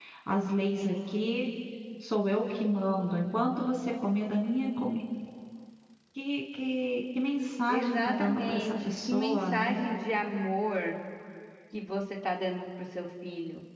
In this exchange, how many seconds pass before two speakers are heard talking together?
7.7 s

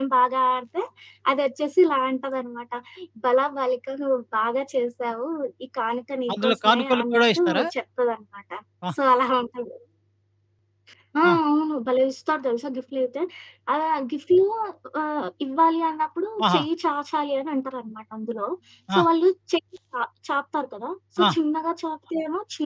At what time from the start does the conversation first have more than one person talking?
6.3 s

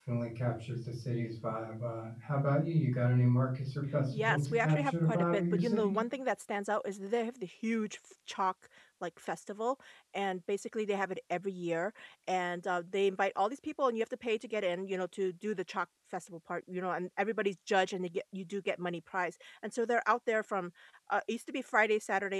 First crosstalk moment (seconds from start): 4.1 s

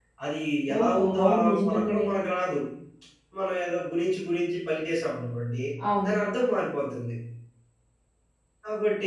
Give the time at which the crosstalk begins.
0.8 s

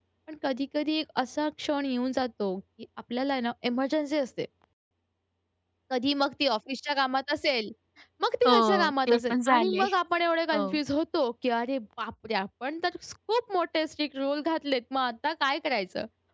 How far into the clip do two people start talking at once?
8.4 s

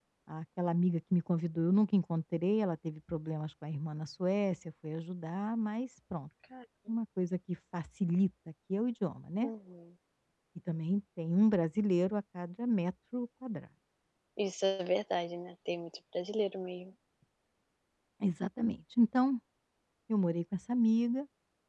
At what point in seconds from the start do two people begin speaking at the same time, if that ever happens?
none

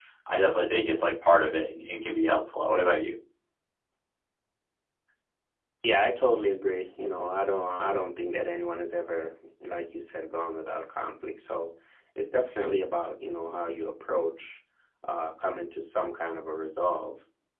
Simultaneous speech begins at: none

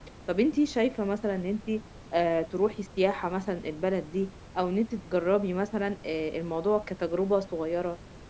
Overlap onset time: none

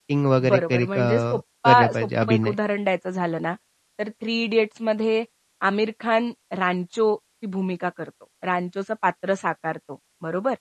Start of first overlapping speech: 0.5 s

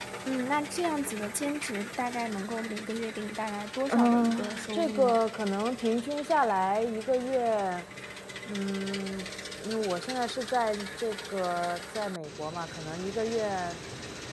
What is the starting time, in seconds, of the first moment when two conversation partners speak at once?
3.9 s

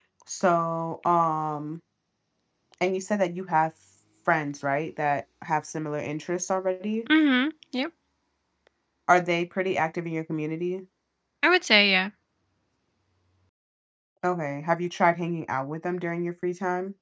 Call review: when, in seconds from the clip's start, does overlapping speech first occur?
none

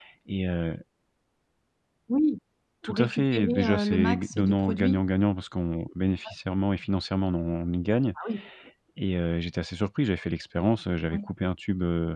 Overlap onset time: 2.9 s

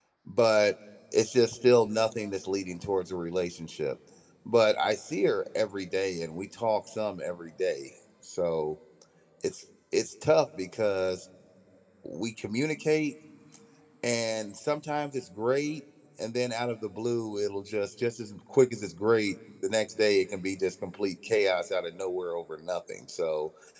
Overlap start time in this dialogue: none

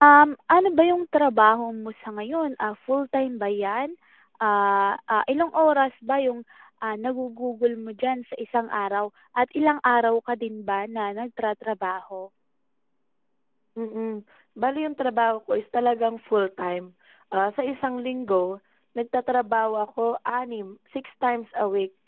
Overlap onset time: none

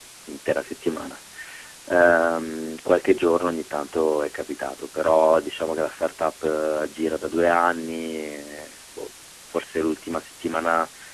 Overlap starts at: none

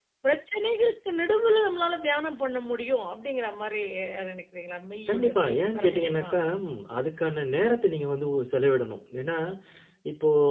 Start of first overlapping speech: 5.1 s

